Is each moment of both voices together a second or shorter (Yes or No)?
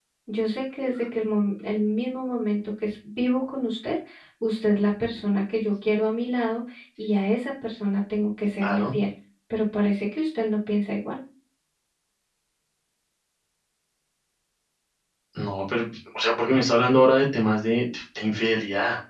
Yes